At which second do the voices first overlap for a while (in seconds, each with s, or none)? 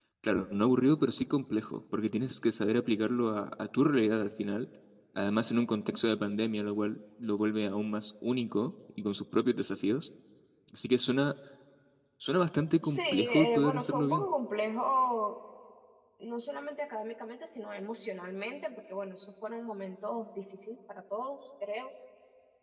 12.8 s